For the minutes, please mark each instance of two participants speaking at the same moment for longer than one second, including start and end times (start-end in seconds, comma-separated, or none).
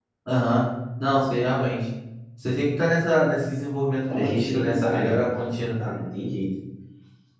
4.1-5.7